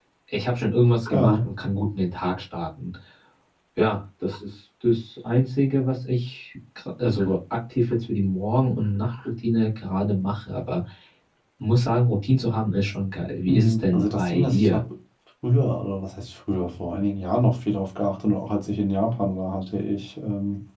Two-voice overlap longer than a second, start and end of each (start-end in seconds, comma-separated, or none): 13.5-14.8